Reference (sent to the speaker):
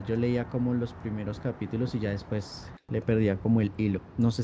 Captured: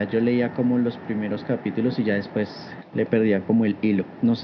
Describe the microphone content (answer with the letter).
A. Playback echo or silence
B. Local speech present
A